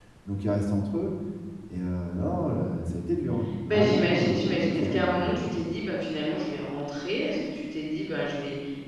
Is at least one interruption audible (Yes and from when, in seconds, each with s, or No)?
Yes, from 3.7 s